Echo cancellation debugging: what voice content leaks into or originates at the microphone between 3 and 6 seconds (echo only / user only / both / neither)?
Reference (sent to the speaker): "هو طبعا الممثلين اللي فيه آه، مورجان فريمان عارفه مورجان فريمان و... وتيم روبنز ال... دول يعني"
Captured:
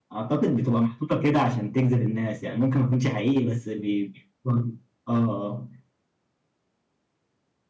user only